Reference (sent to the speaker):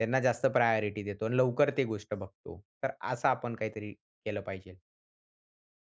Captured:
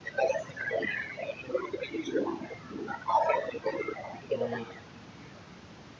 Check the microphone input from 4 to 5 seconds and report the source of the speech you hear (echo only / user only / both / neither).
both